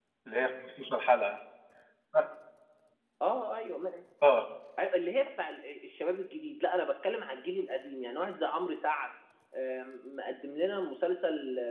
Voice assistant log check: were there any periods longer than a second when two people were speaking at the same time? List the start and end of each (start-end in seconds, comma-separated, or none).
none